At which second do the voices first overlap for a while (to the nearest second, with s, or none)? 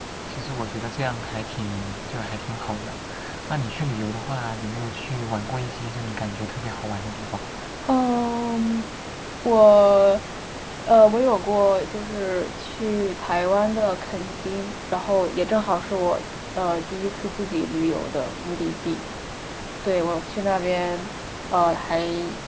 none